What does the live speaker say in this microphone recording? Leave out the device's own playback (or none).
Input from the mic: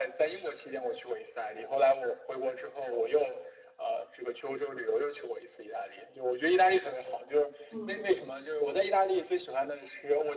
嗯，